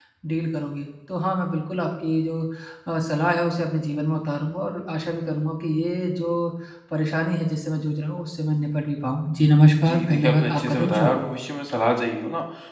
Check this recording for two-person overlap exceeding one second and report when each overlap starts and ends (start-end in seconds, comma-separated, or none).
9.8-11.2